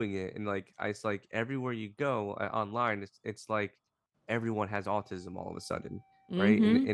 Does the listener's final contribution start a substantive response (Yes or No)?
No